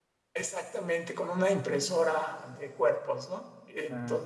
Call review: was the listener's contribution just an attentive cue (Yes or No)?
No